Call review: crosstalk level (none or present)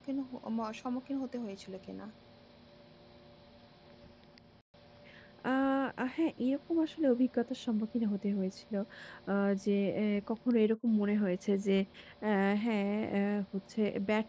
none